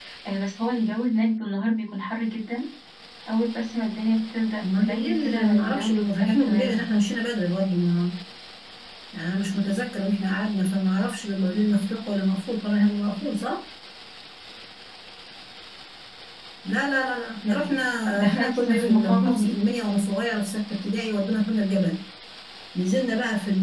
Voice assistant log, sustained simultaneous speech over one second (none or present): present